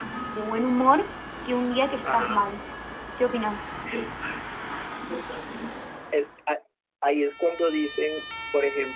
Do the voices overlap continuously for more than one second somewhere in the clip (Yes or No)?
No